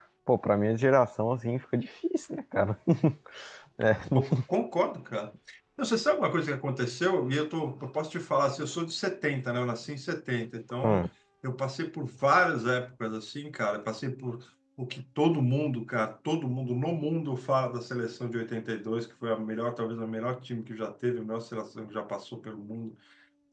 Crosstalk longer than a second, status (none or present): none